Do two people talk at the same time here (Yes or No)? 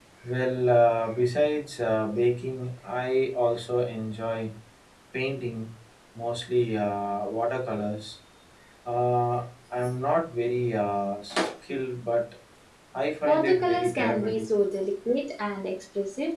Yes